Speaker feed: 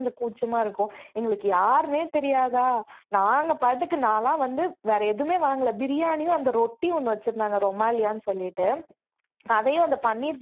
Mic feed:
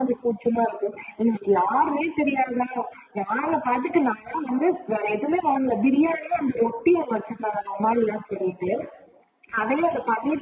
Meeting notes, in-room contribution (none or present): none